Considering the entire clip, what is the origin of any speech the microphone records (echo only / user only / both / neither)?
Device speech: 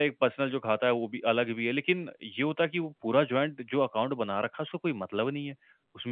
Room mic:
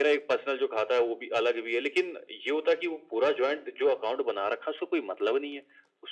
echo only